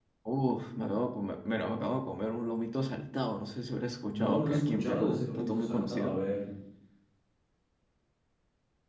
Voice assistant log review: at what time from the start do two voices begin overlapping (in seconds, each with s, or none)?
4.1 s